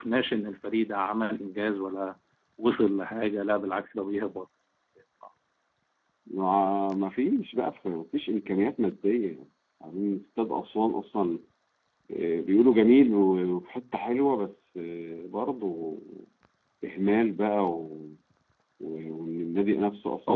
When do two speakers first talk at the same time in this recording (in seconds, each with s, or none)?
none